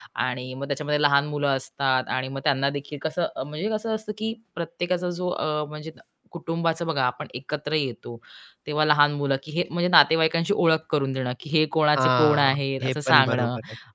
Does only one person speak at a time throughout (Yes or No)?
No